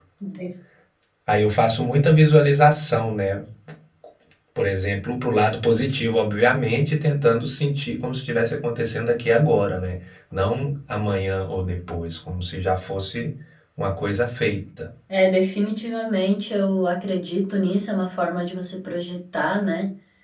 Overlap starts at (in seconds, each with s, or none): none